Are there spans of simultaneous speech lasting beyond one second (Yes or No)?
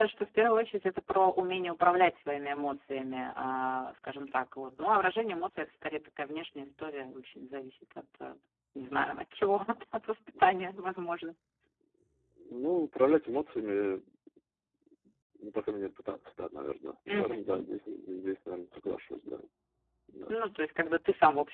No